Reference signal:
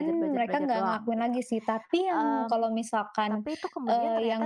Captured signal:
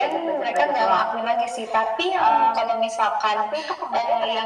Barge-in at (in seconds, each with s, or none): none